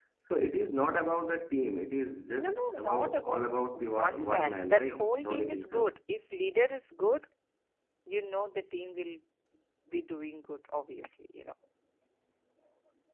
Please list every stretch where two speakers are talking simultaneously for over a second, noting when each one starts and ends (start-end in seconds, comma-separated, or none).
2.4-5.9